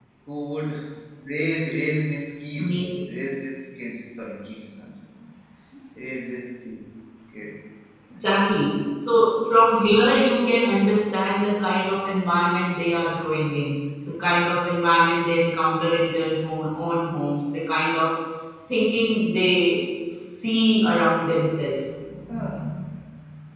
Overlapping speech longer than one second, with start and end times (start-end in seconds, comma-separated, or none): none